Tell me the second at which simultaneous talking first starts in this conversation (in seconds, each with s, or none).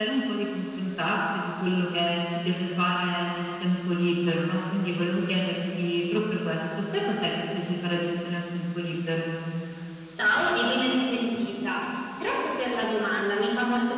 none